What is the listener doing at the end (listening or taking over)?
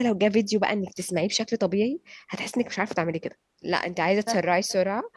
listening